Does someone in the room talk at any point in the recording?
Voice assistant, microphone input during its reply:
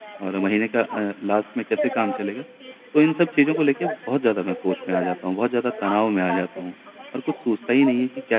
Yes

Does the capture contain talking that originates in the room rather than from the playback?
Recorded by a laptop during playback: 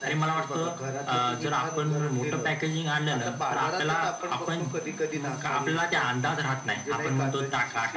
No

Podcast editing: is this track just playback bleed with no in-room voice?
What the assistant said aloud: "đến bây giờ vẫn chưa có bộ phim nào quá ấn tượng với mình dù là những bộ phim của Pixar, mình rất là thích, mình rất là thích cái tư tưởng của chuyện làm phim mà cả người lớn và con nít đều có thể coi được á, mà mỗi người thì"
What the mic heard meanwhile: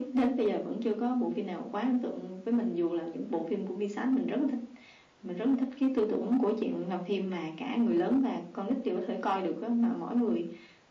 Yes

